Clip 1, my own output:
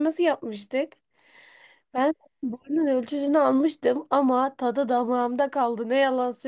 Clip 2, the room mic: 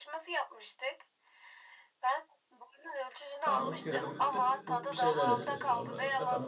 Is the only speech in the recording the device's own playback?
No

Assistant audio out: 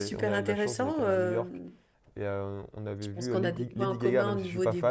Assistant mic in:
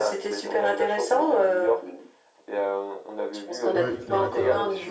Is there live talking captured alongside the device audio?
Yes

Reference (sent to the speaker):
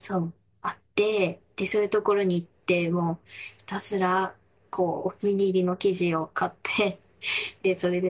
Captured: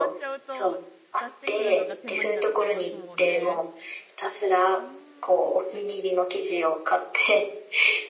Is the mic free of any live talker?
No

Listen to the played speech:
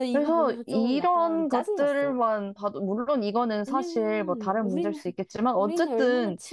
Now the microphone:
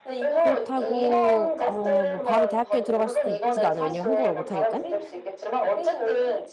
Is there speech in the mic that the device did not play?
Yes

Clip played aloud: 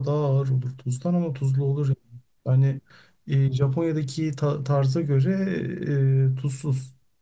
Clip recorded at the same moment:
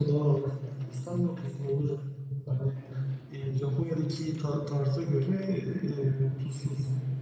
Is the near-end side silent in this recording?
Yes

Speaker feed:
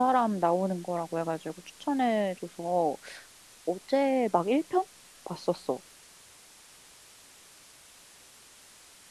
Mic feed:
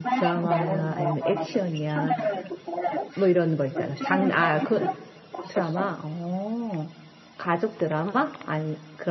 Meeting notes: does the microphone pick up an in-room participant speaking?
Yes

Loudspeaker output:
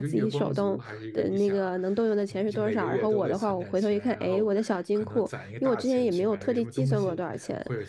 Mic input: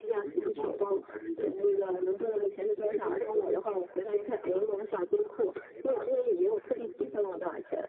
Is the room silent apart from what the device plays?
Yes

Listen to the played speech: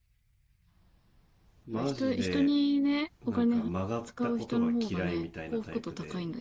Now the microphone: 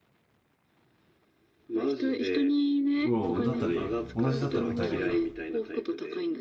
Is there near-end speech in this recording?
Yes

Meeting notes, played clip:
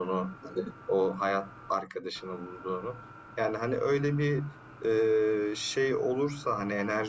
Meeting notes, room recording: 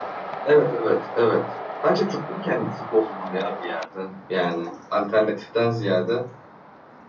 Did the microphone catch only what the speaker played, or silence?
No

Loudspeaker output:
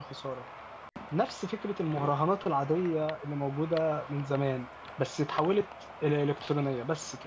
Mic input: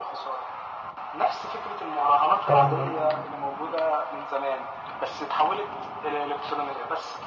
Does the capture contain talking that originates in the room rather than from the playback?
Yes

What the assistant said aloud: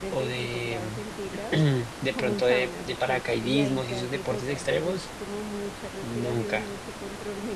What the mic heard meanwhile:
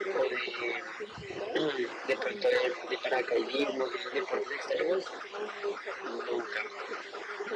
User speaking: No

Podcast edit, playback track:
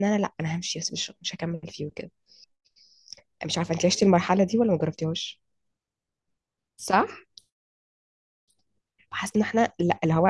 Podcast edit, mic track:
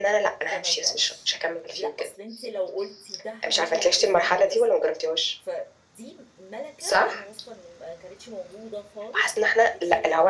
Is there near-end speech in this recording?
Yes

